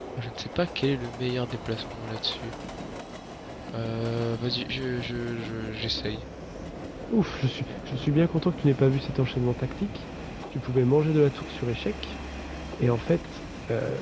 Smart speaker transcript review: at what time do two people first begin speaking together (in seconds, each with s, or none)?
none